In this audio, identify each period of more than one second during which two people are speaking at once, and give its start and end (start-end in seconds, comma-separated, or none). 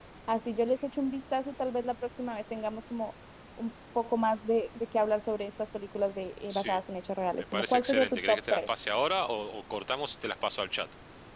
7.5-8.7